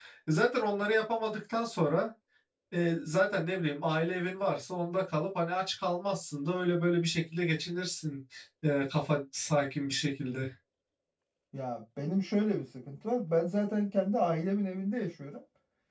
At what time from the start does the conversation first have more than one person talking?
none

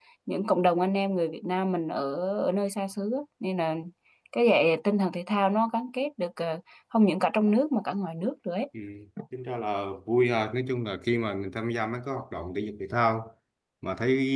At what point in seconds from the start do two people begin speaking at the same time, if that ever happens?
none

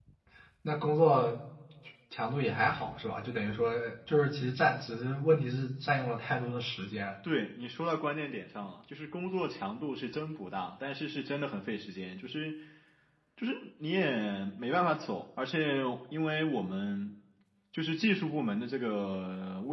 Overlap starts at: none

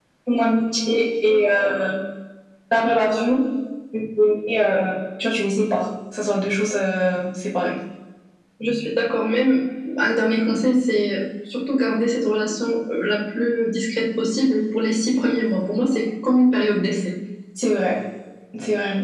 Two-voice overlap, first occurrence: none

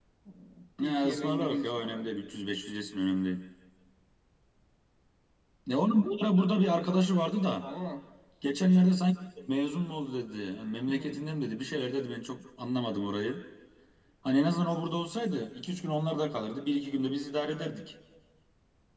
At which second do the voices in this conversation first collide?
0.8 s

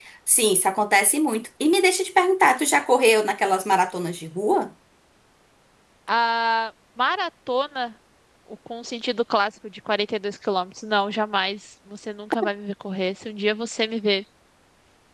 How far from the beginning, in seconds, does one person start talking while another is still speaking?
none

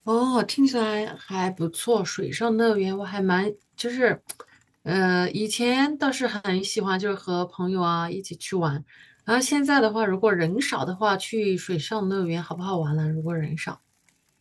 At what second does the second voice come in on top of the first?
none

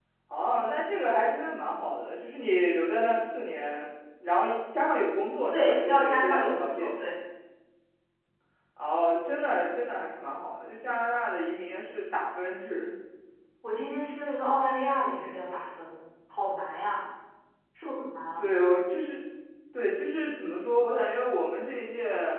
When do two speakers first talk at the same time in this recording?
5.5 s

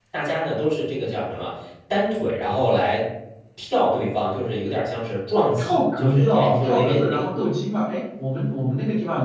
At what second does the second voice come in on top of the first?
5.3 s

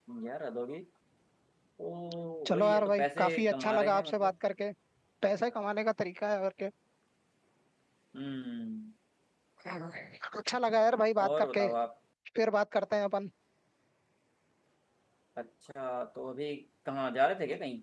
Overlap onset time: 2.5 s

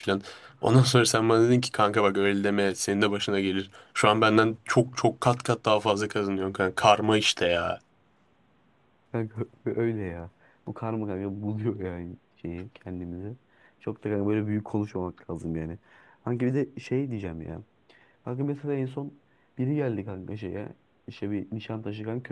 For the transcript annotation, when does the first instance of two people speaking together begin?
none

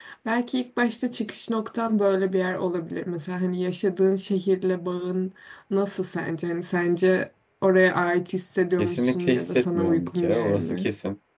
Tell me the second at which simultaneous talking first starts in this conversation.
8.8 s

